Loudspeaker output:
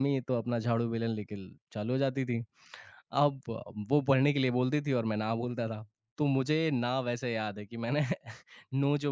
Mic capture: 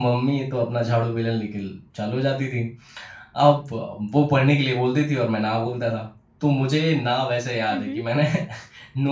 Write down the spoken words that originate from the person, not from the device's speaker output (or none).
हुँ, हुँ।